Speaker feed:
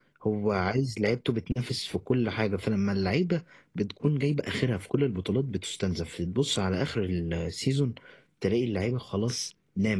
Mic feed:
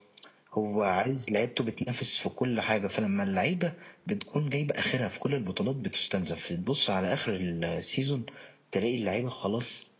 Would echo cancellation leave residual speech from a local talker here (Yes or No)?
No